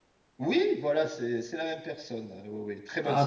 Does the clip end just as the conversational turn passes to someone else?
Yes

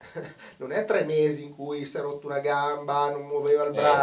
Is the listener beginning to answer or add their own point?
No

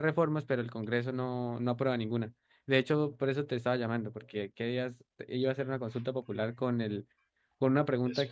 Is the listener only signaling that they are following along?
Yes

